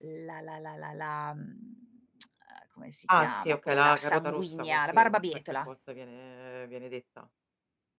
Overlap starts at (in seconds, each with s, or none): 3.1 s